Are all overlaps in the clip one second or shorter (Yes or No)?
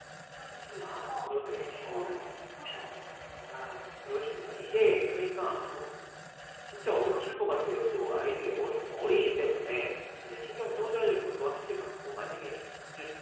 No